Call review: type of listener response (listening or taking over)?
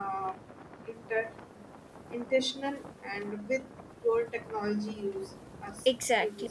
taking over